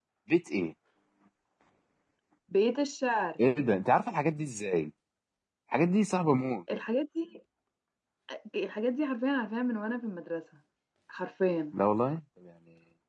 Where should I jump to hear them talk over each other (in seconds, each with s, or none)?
none